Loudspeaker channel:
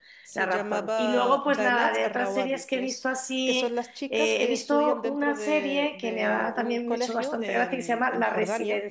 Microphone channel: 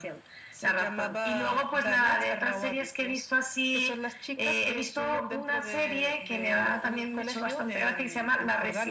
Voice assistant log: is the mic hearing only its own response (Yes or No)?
Yes